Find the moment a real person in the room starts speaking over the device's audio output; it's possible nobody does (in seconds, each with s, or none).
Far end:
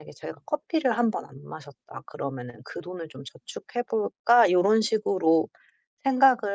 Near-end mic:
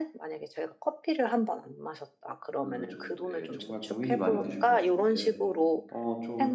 2.6 s